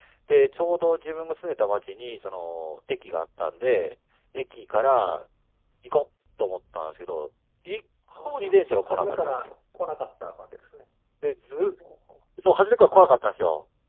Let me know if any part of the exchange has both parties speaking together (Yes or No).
Yes